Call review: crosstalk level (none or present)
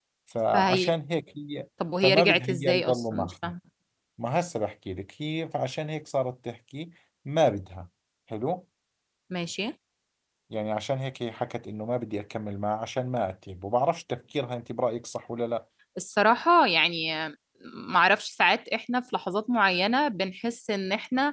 present